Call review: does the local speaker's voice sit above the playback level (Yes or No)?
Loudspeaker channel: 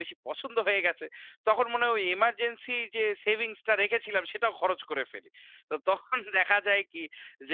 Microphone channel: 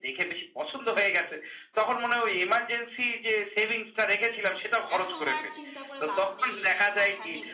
No